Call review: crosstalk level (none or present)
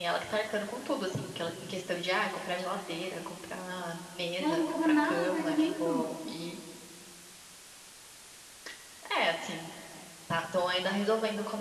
present